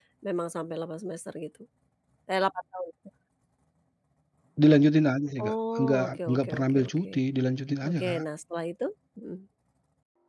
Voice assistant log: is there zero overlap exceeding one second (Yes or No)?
No